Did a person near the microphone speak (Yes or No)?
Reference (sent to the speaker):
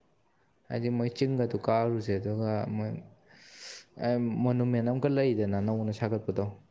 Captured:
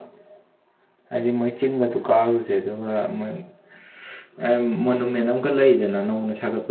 No